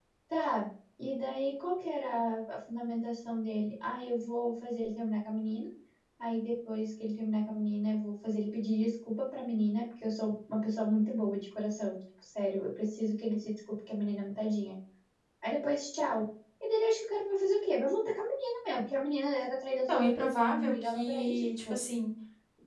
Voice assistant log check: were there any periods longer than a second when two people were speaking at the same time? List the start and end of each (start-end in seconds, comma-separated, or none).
19.9-21.7